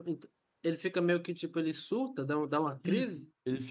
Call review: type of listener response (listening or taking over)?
taking over